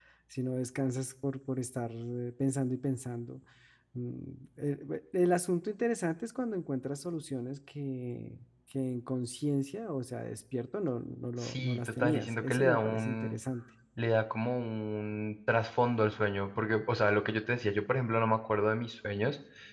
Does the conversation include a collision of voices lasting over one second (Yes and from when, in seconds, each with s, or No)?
Yes, from 11.4 s